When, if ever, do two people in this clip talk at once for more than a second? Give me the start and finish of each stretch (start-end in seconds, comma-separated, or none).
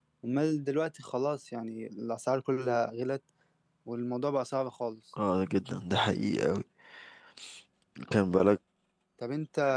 none